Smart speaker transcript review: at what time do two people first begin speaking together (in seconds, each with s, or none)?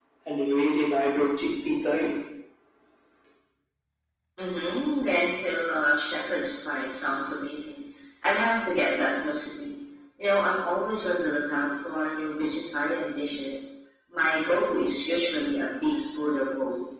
none